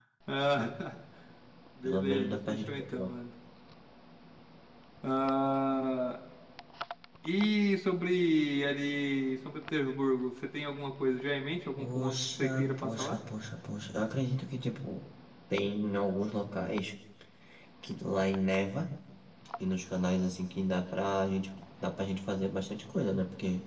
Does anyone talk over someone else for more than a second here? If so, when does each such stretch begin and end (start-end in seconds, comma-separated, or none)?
1.8-3.1, 11.8-13.2